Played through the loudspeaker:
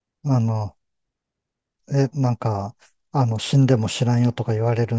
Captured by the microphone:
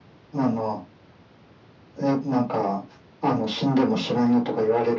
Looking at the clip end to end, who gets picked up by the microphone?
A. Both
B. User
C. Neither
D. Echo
D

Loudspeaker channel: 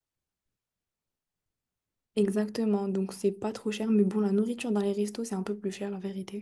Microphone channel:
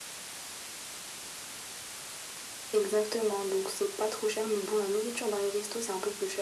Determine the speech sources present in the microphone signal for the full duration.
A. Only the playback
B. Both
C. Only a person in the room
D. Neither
A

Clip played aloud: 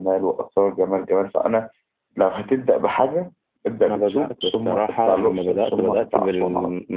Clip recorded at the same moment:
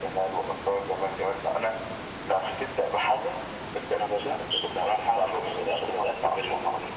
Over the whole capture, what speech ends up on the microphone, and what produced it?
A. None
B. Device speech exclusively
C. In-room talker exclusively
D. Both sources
B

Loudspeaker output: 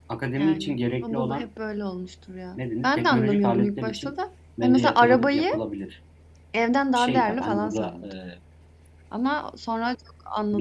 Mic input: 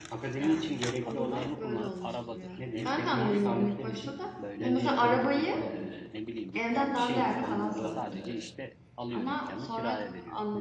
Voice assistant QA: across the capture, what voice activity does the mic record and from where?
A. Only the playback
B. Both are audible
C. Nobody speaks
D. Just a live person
B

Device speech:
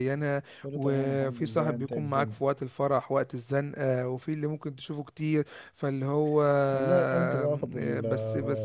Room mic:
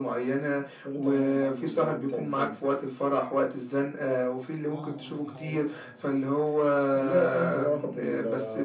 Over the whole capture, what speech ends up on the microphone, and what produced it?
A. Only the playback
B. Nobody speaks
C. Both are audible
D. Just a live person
C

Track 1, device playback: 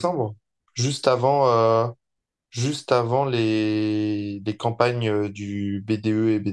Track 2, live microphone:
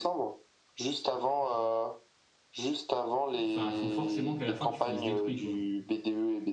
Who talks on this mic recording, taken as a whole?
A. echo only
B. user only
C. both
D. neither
C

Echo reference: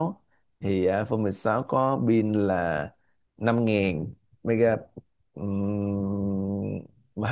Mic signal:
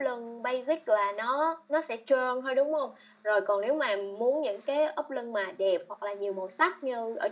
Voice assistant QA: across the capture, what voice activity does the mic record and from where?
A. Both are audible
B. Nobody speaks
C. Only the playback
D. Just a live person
D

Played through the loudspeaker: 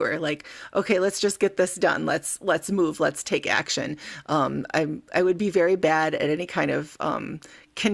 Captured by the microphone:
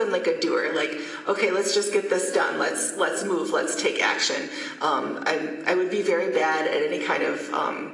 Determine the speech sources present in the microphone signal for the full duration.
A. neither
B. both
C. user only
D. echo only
D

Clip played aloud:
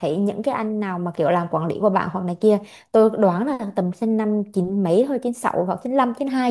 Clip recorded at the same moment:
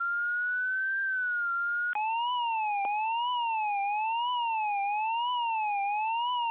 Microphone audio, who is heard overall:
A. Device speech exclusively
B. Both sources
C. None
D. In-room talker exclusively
C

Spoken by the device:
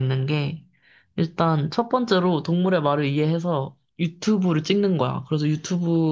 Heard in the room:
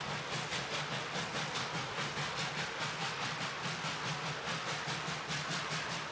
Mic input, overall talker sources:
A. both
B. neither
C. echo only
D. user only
B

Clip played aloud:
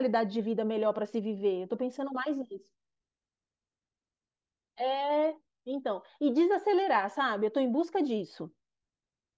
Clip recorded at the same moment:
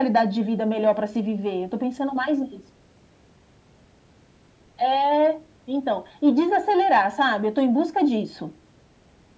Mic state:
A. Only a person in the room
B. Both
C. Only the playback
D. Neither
C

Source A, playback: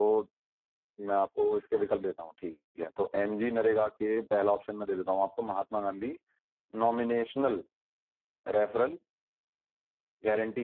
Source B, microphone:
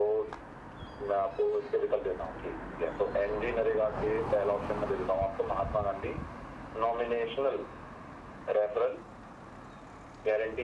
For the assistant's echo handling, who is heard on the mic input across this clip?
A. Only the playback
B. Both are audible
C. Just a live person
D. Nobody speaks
A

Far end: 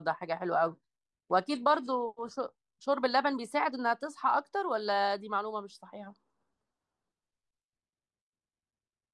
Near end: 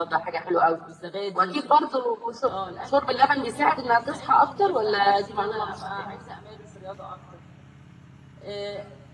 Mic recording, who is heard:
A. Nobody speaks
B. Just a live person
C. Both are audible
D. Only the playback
C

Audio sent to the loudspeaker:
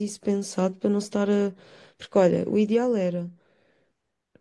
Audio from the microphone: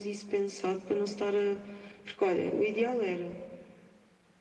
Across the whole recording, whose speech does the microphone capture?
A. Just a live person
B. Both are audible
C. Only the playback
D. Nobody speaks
C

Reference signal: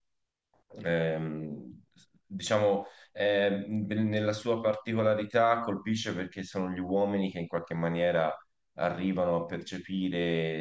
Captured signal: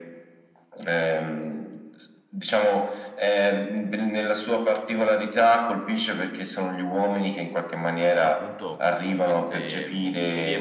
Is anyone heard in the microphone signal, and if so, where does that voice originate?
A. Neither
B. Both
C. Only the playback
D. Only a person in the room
B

